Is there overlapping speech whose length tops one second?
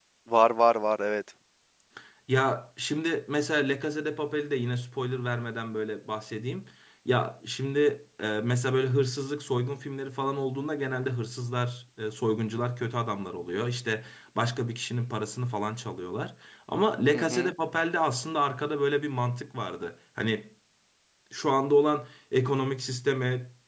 No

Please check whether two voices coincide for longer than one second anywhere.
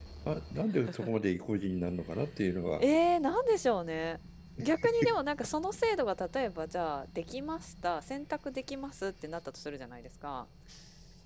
No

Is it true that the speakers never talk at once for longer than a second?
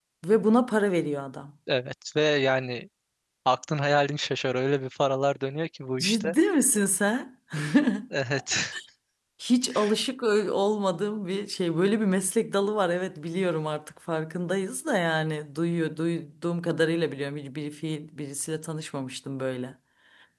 Yes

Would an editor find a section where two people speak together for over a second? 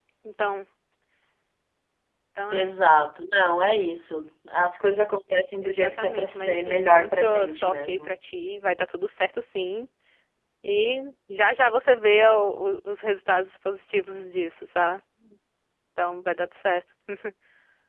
Yes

